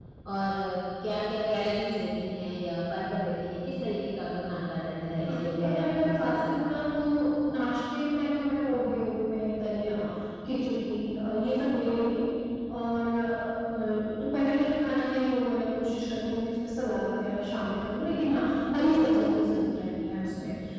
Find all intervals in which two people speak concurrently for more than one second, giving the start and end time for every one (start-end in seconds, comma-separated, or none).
5.2-6.5